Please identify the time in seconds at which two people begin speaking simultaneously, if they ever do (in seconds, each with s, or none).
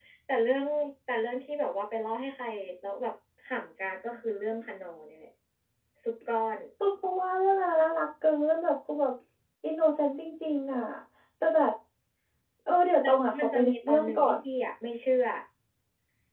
13.0 s